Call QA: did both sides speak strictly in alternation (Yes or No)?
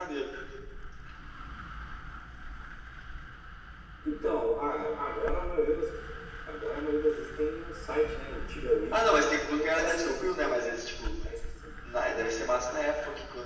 No